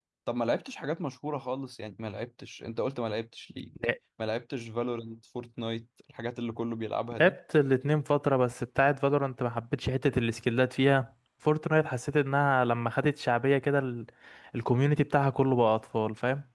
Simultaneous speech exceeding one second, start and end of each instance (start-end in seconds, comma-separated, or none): none